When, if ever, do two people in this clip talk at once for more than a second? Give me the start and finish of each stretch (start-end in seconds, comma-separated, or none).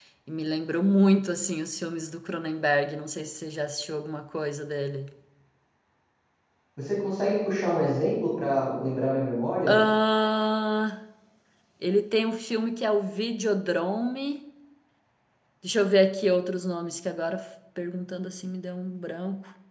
none